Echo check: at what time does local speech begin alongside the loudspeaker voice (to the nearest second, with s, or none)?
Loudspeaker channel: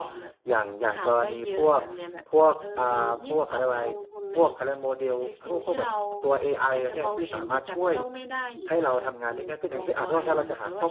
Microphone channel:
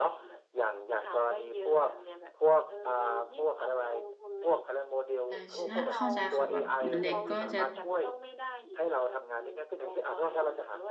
5 s